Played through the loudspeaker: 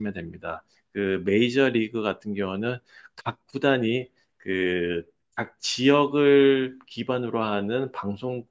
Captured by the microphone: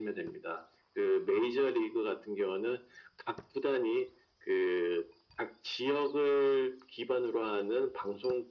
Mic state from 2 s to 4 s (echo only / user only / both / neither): echo only